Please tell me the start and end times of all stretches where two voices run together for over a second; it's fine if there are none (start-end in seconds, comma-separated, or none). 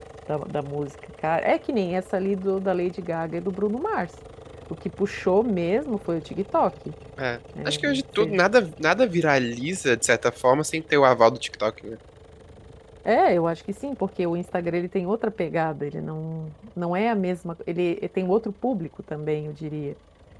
none